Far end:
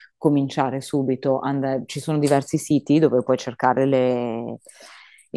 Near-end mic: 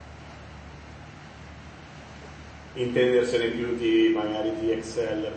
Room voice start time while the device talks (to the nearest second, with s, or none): 3 s